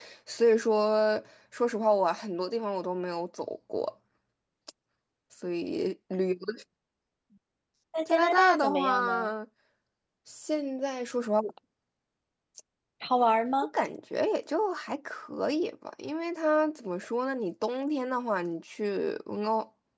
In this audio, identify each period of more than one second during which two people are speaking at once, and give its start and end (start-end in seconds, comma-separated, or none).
8.1-9.3